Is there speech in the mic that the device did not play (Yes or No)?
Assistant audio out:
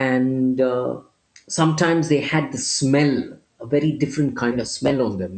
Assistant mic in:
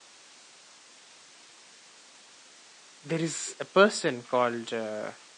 Yes